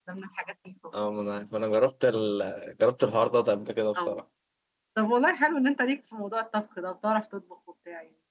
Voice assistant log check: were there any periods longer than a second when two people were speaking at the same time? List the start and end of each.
none

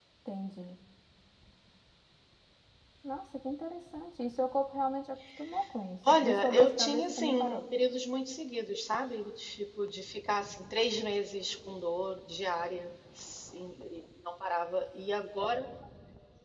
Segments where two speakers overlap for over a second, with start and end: 6.1-7.6

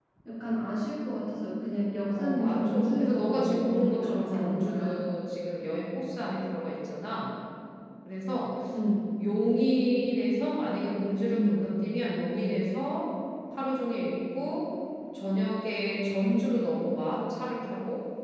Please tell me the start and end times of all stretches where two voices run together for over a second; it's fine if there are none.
2.2-5.0

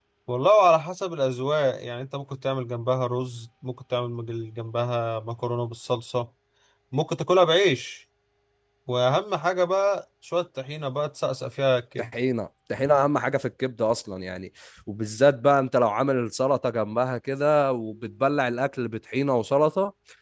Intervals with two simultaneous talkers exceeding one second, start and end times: none

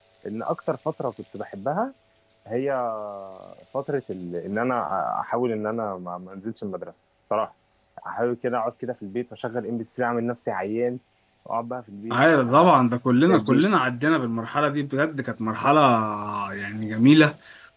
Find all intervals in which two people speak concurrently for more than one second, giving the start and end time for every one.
none

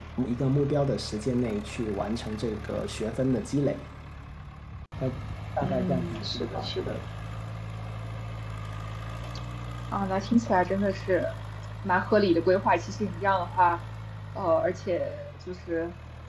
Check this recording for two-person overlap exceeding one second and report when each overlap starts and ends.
5.6-7.0

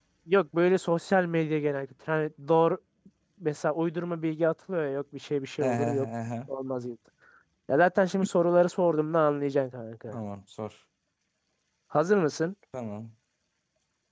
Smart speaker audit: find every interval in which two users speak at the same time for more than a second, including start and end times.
none

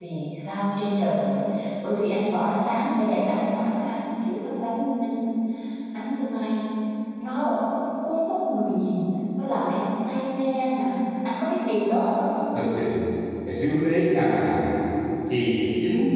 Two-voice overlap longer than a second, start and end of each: none

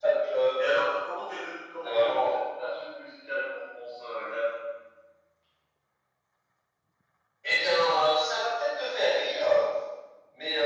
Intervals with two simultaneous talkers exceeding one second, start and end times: none

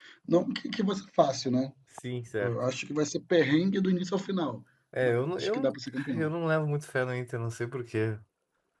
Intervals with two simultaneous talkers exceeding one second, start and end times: 5.0-6.3

